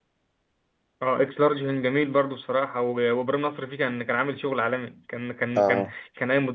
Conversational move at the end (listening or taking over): listening